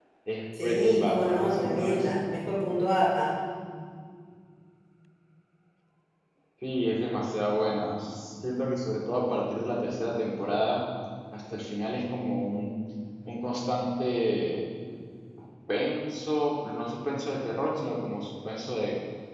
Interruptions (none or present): present